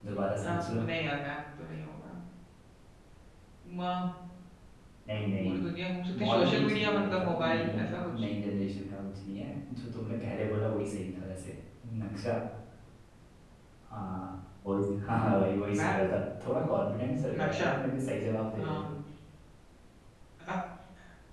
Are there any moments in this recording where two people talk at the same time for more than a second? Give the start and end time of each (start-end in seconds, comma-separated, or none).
6.2-8.3